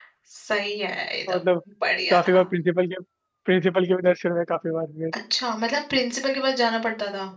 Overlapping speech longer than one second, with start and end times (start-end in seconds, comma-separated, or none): none